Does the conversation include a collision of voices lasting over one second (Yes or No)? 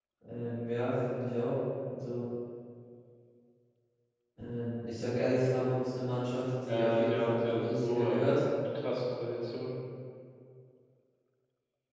Yes